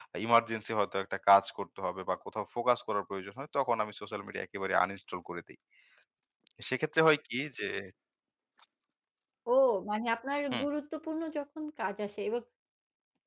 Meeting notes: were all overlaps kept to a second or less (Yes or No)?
Yes